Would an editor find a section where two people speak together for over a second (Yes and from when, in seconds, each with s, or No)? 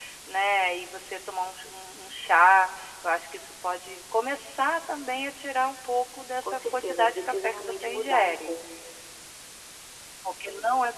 Yes, from 6.4 s